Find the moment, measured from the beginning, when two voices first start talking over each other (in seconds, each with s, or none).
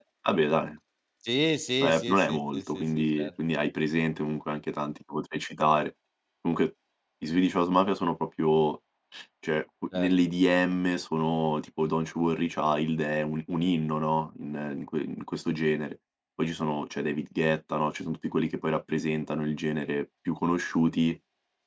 1.8 s